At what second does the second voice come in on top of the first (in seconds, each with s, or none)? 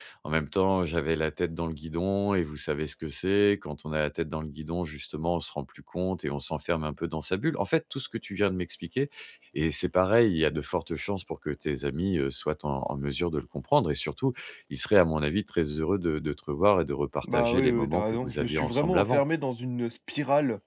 17.2 s